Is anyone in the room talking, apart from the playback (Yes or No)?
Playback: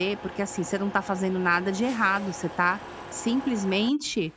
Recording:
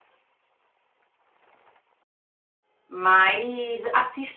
Yes